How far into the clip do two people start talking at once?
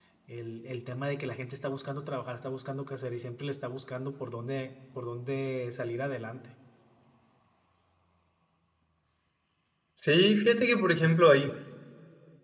none

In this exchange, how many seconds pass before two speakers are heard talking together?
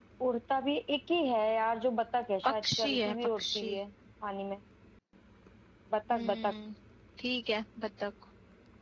2.4 s

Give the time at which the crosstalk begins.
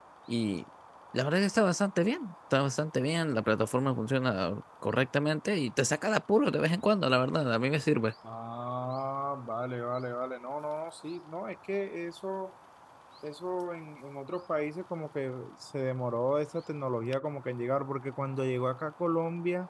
none

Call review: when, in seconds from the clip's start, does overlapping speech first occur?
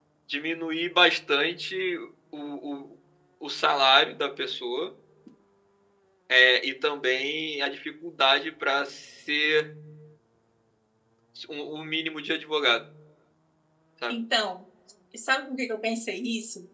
none

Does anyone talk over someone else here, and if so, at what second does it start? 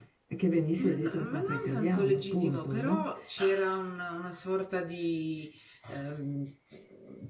0.8 s

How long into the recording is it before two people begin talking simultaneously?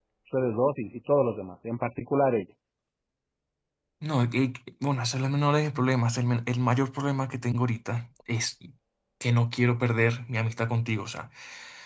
none

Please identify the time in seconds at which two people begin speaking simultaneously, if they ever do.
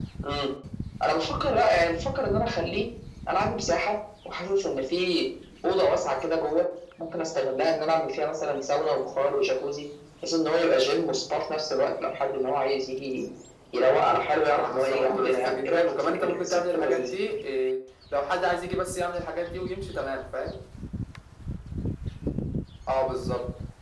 14.5 s

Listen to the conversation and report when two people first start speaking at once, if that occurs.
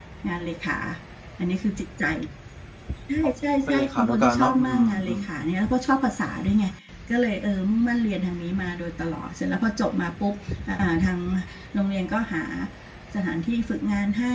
3.7 s

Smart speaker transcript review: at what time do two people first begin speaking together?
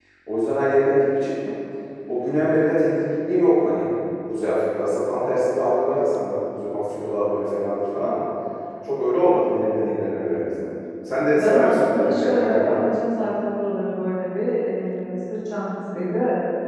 11.3 s

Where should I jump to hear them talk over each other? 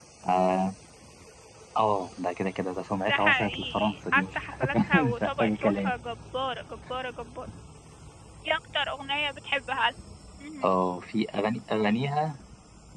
3.1 s

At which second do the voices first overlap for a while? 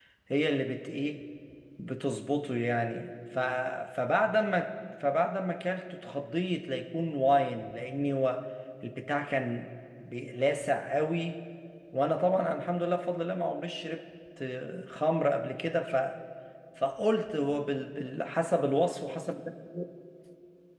none

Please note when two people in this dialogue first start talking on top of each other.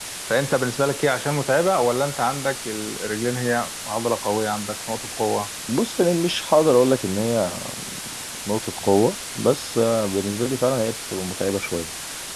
none

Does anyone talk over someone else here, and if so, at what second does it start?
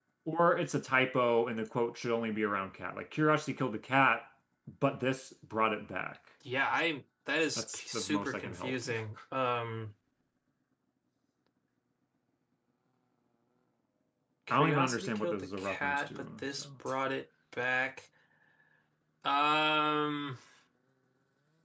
7.6 s

